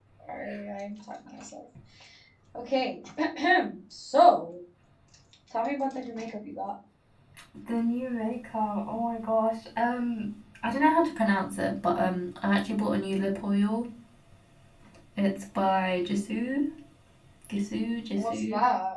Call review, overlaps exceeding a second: none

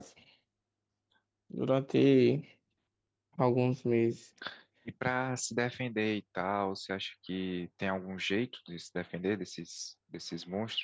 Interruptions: none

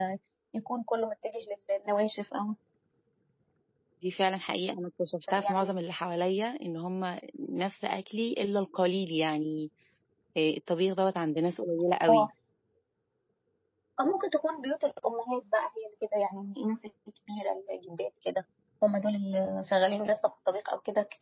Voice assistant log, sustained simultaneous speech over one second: none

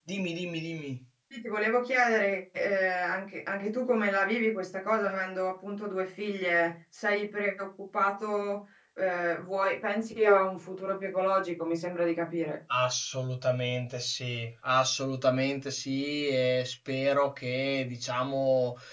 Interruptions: none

